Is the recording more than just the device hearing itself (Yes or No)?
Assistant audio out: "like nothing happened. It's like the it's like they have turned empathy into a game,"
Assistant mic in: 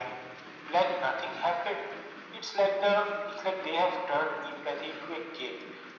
No